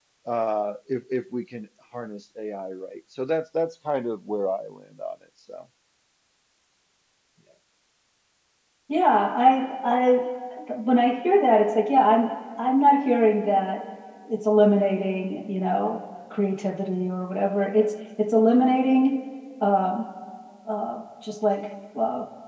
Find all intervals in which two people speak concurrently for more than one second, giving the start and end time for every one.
none

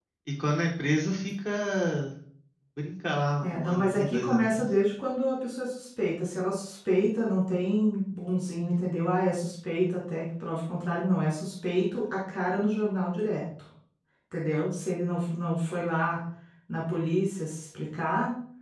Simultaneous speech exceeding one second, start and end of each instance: 3.4-4.7

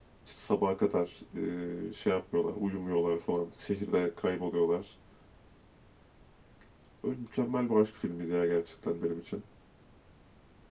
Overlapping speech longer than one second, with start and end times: none

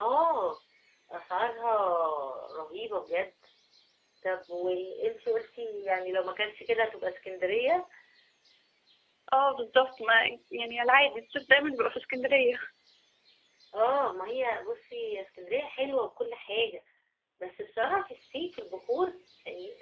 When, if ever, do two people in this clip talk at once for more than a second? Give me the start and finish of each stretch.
none

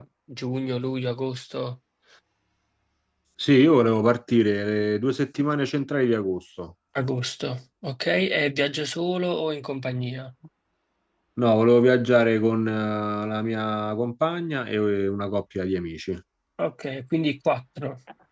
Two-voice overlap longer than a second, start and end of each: none

